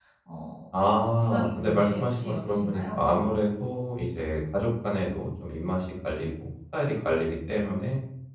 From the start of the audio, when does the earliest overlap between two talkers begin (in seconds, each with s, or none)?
1.2 s